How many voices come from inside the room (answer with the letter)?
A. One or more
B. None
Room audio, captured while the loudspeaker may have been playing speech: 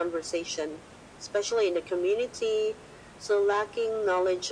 B